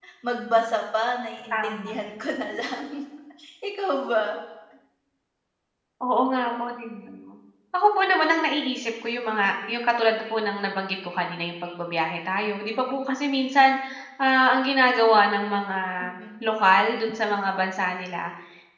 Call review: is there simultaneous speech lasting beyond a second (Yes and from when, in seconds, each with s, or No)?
No